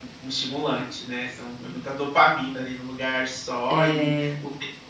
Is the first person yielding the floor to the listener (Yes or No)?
No